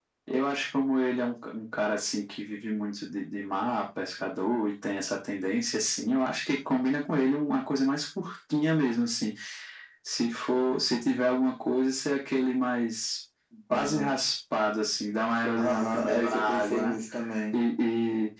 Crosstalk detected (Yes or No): Yes